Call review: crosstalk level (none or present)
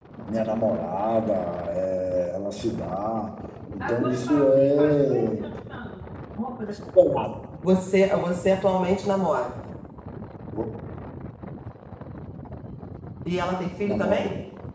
present